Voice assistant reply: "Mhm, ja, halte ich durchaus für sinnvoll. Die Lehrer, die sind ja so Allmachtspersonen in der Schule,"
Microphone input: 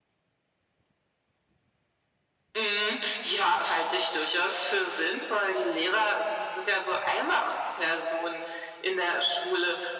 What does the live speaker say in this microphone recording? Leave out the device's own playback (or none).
none